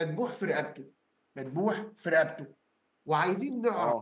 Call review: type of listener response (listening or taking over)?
listening